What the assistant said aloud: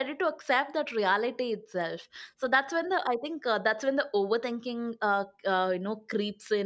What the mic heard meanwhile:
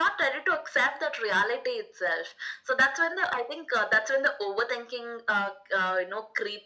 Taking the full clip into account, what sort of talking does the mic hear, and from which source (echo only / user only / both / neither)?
echo only